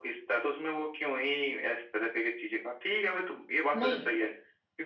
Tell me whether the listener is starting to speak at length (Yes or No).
No